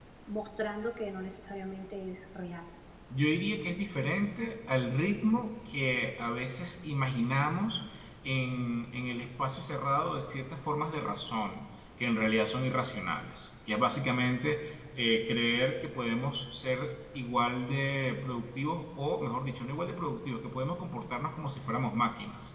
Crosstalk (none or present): none